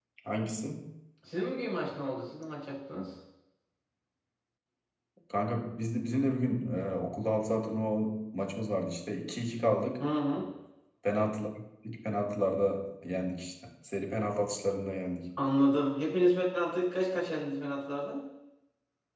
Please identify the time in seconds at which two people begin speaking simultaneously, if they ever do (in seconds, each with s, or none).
none